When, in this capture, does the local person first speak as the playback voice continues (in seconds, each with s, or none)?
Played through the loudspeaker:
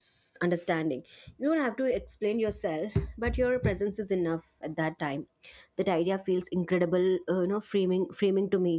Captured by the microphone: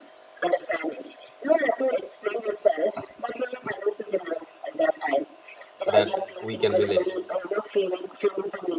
5.9 s